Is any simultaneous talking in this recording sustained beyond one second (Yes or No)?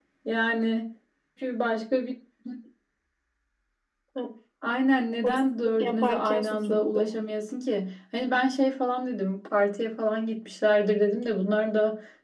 Yes